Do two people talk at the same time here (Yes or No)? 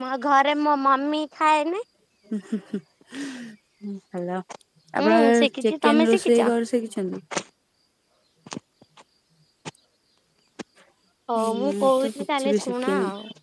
Yes